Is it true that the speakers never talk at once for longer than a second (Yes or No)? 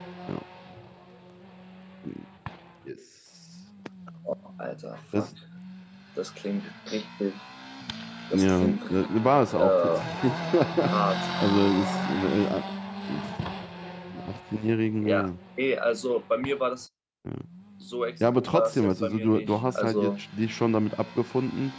No